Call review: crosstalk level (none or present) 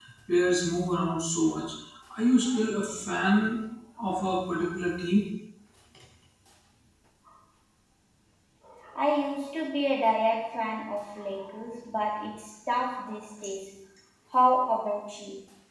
none